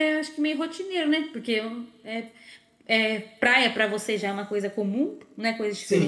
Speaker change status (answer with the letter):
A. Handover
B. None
A